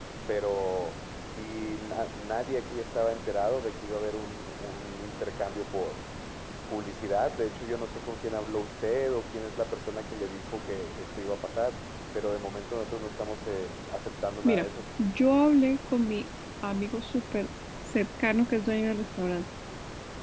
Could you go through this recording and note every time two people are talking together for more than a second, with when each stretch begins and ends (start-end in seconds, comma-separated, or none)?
none